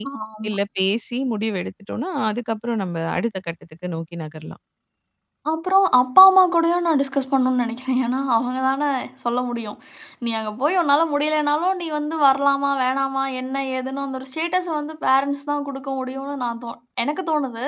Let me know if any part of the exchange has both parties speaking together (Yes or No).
No